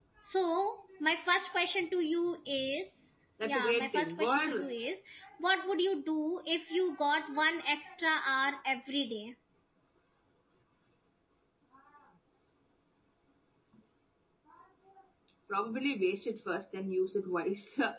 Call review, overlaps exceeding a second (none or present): present